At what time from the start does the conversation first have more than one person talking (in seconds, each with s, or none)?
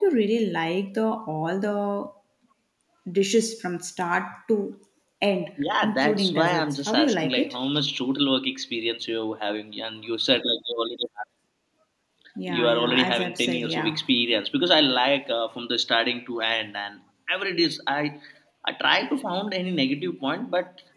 5.8 s